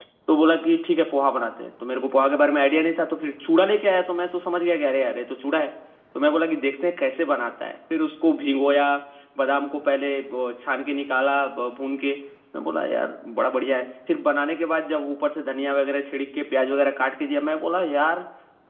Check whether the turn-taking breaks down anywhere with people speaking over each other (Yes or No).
No